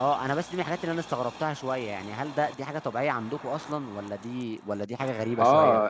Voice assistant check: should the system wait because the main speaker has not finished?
No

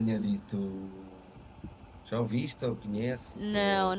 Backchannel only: No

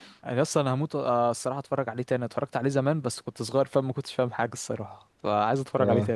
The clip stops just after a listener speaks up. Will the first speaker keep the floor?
No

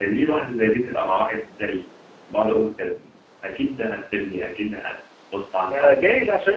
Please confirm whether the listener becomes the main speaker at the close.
Yes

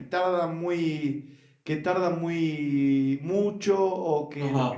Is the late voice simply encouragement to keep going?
No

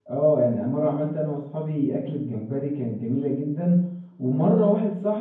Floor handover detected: No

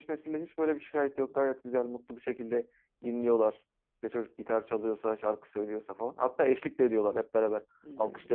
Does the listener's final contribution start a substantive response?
No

